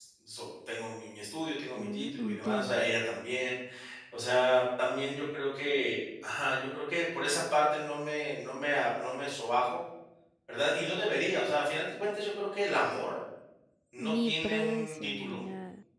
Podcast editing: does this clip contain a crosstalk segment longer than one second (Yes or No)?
Yes